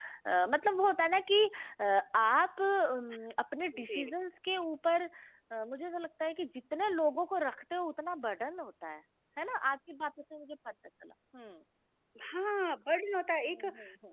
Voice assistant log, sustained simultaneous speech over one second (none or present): none